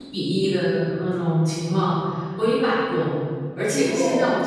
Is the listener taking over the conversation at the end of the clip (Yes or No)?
No